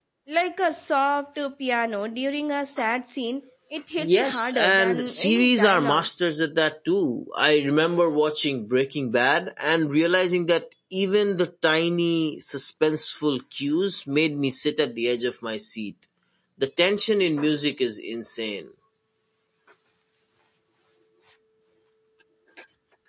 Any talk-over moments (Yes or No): Yes